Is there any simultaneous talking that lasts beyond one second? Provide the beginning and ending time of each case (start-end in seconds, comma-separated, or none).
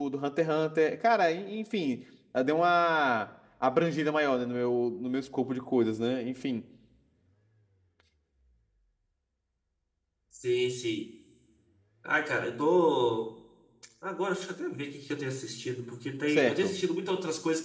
none